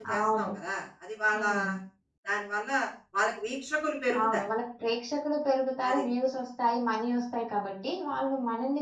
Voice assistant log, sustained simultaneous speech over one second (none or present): none